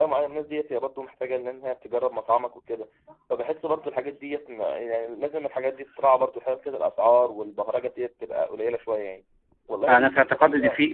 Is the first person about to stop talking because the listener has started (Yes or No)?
Yes